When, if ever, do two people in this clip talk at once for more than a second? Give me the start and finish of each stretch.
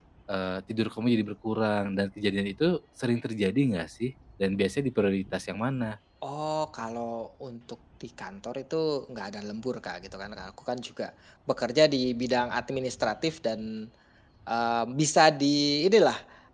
none

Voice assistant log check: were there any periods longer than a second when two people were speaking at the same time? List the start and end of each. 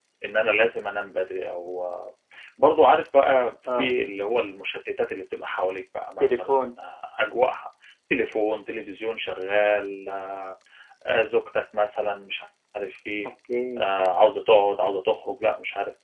none

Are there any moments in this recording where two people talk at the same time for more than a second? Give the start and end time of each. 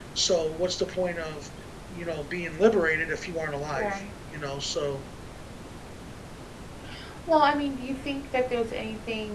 none

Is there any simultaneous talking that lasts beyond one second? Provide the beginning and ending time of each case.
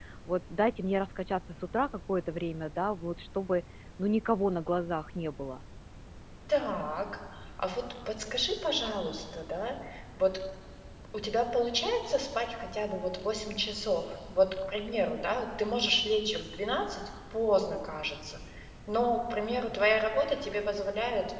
none

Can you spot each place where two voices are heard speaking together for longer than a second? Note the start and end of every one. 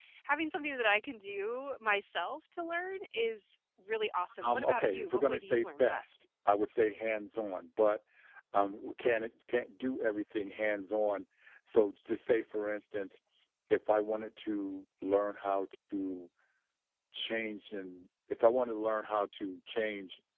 4.4-6.2

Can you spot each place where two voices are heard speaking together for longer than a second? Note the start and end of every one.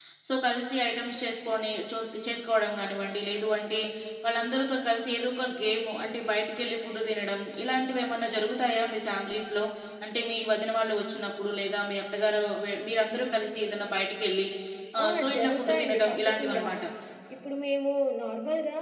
15.1-16.6

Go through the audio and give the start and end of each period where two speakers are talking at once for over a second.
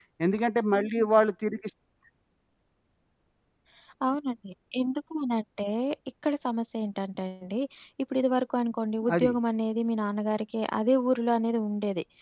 none

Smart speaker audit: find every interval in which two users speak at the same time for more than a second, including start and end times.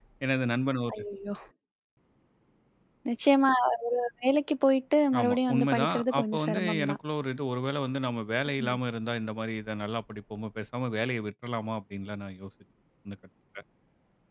5.2-7.0

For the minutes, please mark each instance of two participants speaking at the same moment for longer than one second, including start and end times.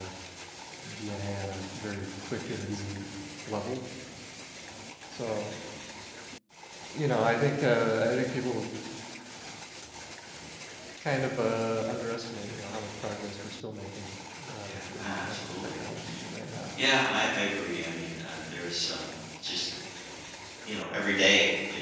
14.6-15.8

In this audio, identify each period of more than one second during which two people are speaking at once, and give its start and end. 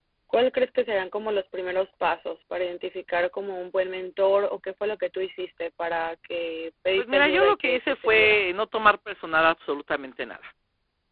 7.0-8.4

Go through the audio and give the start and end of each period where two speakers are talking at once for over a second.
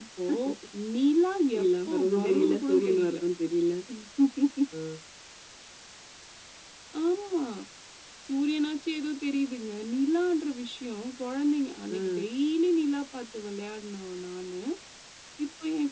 1.5-3.2

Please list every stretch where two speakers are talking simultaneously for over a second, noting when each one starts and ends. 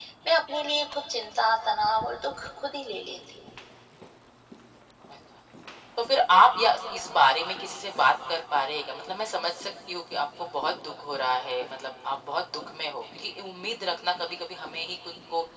none

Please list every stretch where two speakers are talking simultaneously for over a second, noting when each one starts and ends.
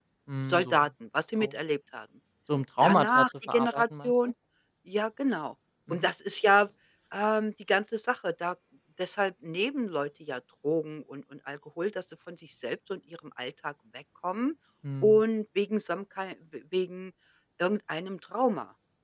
2.8-4.1

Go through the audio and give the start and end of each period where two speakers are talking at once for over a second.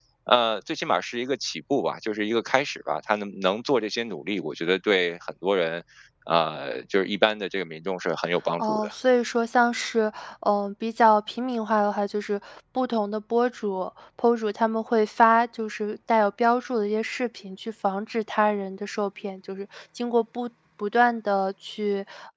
none

